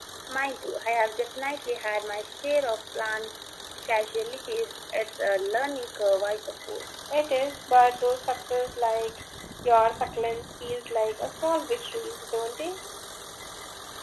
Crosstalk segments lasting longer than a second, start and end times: none

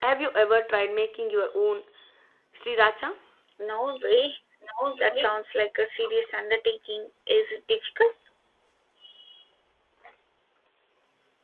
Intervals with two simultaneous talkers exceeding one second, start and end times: none

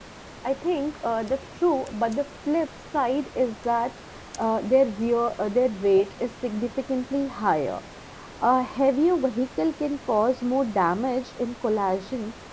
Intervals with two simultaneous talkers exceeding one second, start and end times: none

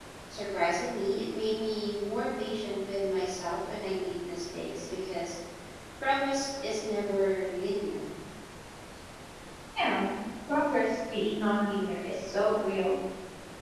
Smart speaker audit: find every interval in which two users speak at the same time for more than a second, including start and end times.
none

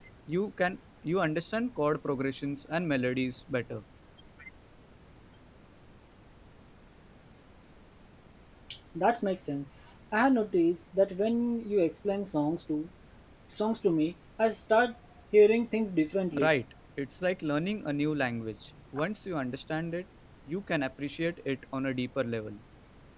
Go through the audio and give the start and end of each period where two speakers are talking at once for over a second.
none

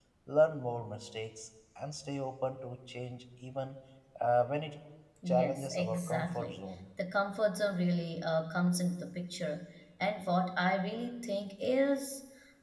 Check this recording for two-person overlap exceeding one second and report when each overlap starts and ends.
5.3-6.6

